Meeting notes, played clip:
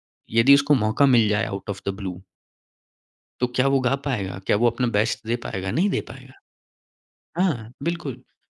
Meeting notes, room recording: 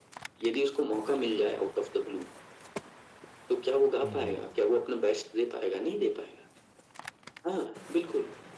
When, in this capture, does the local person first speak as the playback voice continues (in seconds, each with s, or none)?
4.0 s